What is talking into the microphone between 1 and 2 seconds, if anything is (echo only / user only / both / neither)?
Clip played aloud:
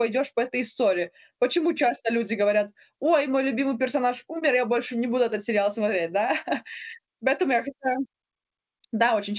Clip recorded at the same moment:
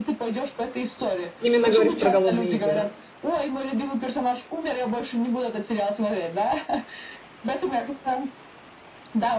both